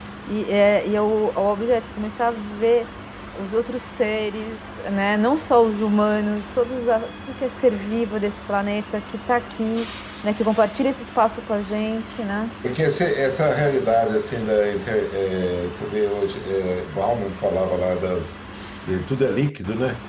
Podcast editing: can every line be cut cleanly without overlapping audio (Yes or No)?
Yes